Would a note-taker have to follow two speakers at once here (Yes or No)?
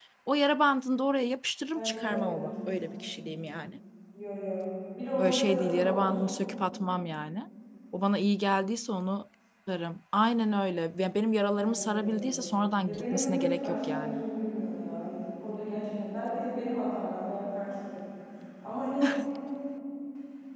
Yes